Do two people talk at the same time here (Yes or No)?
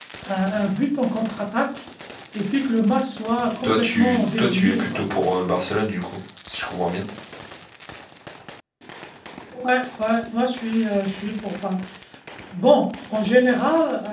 Yes